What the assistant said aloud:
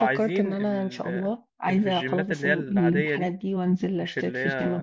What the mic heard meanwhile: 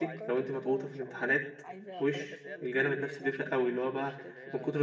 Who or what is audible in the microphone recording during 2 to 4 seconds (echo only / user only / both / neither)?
both